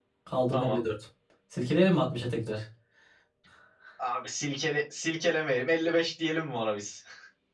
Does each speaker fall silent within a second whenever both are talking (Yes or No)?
Yes